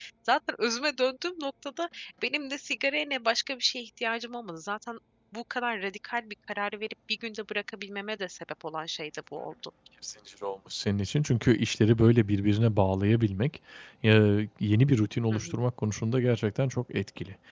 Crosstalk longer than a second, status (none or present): none